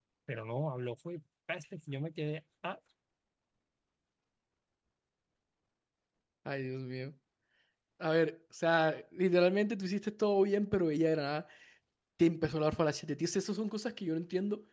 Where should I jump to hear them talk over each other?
none

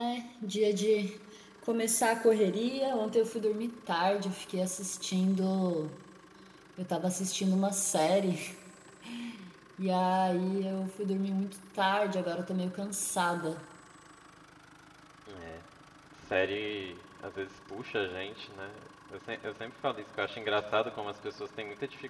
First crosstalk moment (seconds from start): none

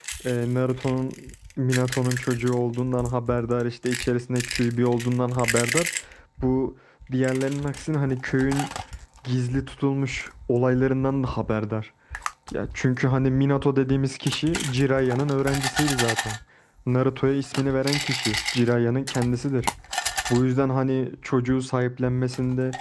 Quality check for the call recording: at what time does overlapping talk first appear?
none

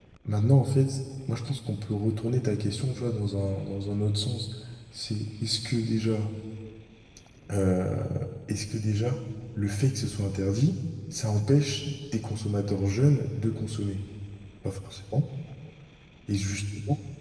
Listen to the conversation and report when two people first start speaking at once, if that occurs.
none

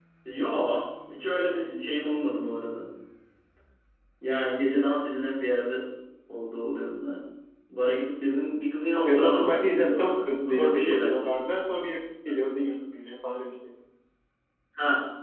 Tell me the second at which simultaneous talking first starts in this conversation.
9 s

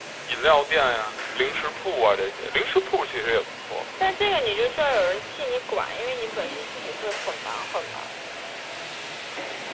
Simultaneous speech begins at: none

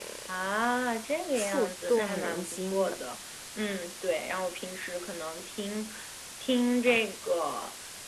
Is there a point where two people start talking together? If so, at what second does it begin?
1 s

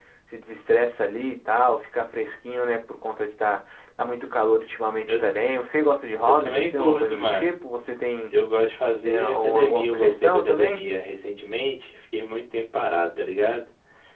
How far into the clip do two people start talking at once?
6 s

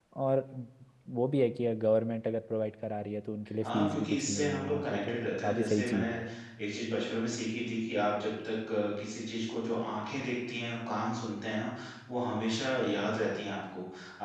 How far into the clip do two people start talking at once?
4 s

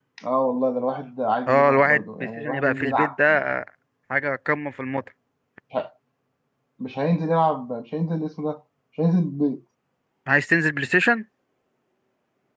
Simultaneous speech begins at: 1 s

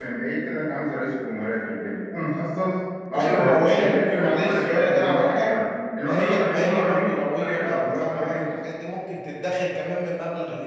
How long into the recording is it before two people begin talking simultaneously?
3 s

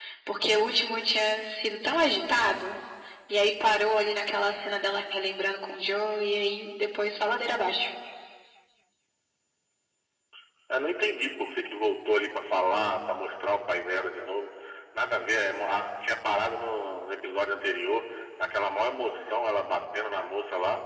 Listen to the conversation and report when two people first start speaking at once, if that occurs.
none

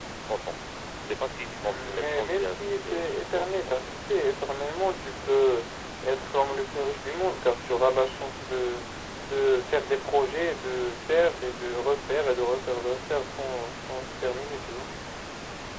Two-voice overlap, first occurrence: 2 s

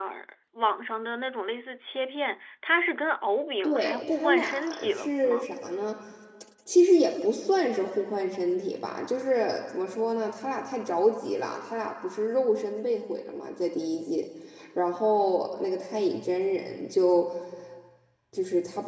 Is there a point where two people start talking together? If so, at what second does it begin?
4 s

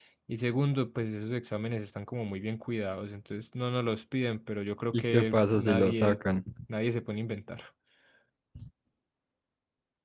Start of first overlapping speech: 5 s

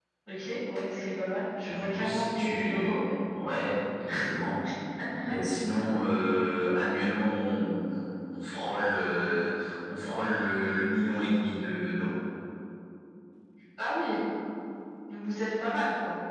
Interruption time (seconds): 2 s

